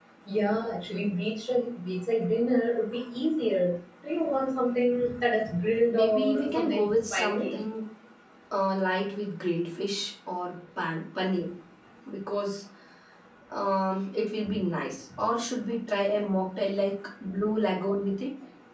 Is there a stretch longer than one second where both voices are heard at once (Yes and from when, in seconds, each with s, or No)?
Yes, from 5.9 s